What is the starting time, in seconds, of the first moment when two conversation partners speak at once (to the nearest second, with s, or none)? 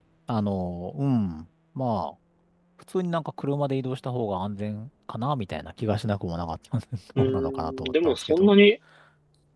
7 s